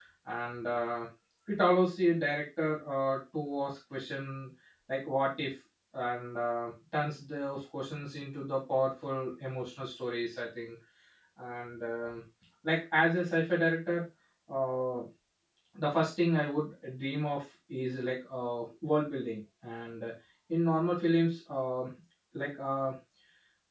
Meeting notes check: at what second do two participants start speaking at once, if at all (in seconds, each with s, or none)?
none